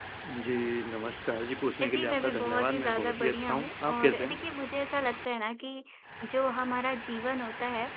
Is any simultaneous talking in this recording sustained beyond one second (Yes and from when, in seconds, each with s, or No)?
Yes, from 1.8 s